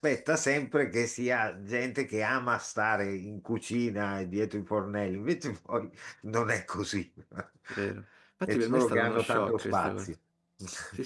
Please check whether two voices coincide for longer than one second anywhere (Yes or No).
Yes